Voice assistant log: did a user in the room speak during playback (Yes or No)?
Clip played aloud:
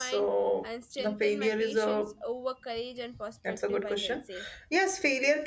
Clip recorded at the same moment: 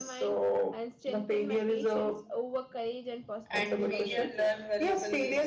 Yes